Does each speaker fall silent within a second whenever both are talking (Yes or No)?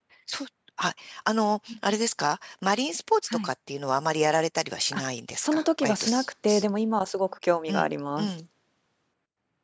No